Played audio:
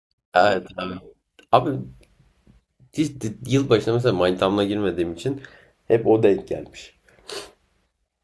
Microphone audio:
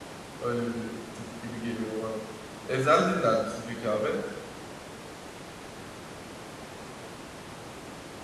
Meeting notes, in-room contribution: present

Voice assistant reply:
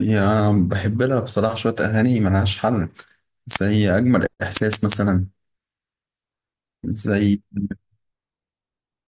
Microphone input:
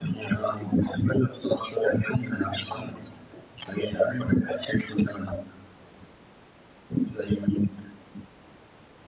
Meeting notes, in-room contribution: none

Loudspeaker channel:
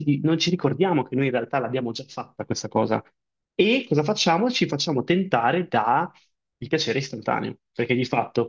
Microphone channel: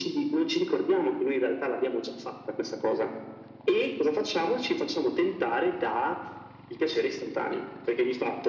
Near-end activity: none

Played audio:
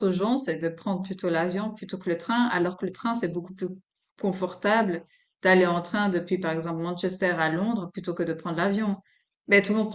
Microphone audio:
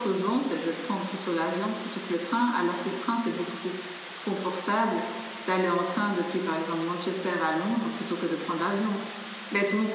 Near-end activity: none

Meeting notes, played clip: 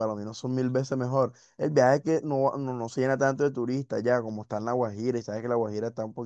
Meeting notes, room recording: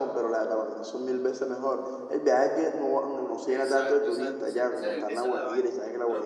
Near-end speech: present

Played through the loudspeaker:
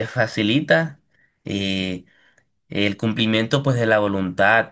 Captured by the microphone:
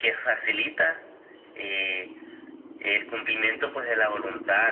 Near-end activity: none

